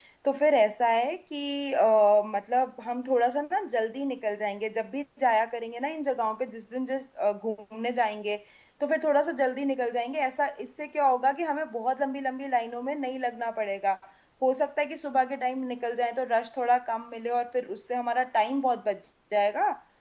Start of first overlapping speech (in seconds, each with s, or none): none